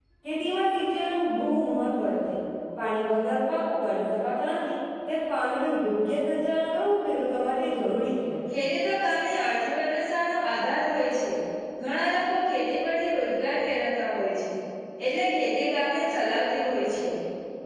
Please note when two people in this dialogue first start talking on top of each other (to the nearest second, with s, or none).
none